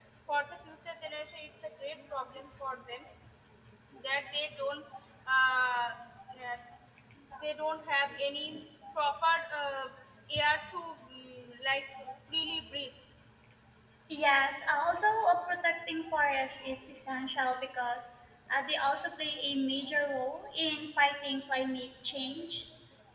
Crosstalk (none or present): none